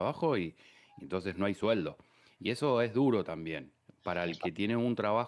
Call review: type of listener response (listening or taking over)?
listening